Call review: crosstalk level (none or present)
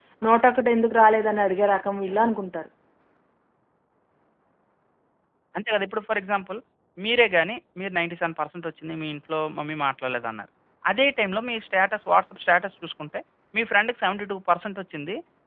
none